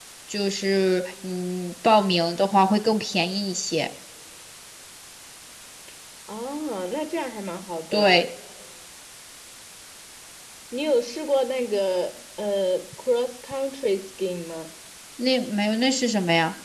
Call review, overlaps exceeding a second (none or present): none